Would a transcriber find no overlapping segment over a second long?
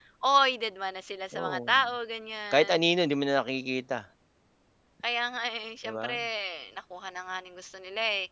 Yes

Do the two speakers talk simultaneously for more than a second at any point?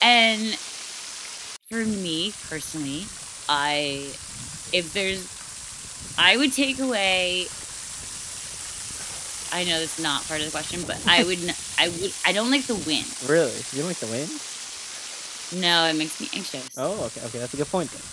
No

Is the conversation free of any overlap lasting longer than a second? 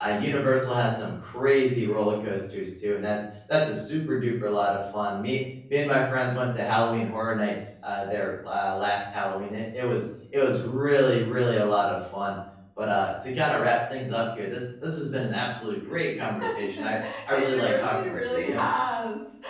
No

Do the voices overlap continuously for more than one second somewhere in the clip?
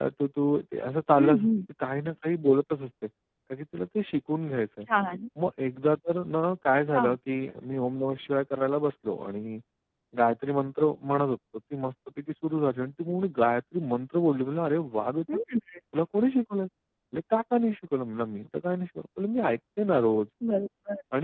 No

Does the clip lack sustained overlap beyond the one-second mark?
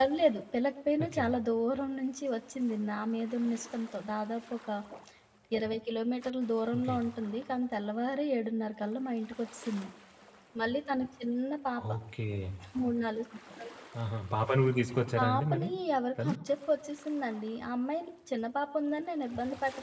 Yes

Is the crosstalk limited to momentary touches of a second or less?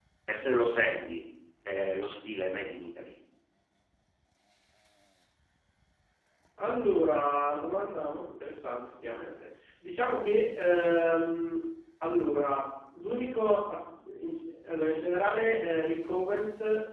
Yes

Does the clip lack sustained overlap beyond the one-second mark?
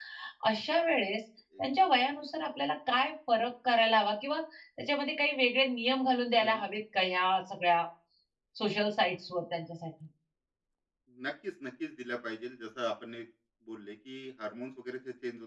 Yes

